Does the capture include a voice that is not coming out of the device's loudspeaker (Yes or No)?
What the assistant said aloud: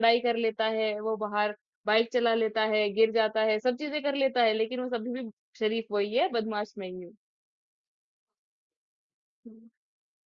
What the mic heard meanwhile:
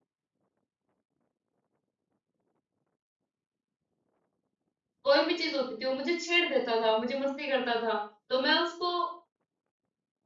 Yes